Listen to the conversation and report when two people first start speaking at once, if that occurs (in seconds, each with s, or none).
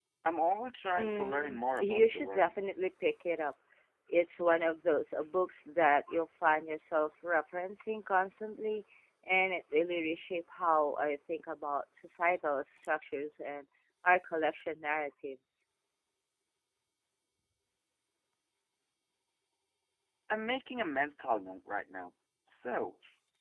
1.0 s